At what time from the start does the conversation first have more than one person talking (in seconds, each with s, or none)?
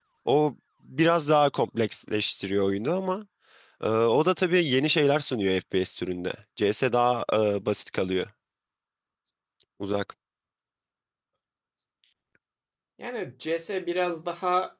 none